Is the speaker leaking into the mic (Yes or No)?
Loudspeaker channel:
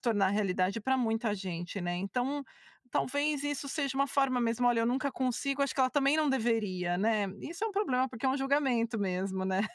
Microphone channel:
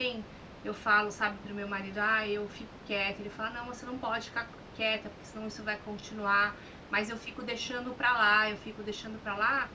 No